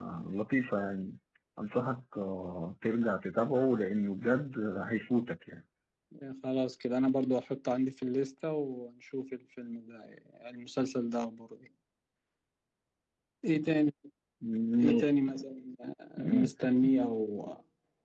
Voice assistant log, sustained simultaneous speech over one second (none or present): none